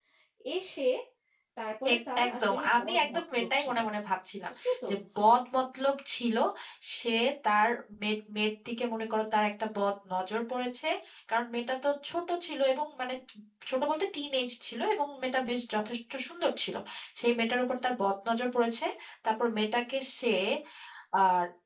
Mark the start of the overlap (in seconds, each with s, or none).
1.9 s